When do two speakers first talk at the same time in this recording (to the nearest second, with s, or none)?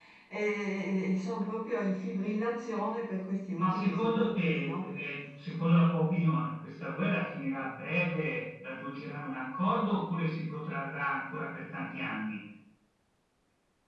4 s